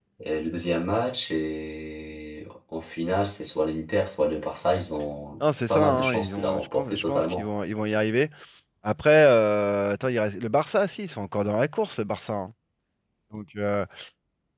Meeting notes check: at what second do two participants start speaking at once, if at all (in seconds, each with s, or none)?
5.7 s